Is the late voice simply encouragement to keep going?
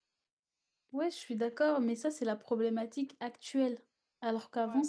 Yes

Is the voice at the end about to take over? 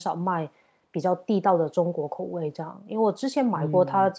No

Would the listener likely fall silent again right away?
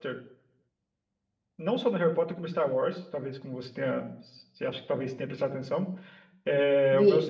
Yes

